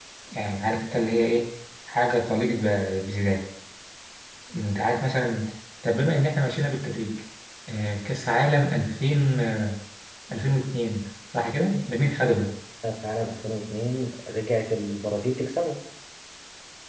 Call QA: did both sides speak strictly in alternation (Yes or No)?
Yes